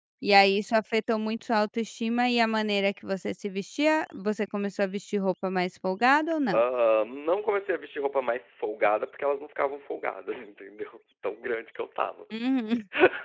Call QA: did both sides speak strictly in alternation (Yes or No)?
Yes